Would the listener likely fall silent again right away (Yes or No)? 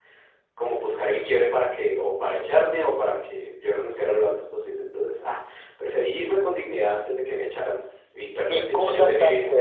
No